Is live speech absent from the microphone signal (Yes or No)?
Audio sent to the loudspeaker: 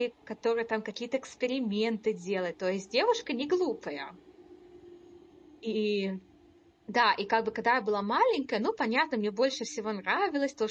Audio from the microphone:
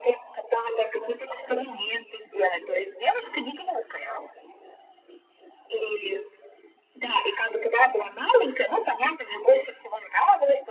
Yes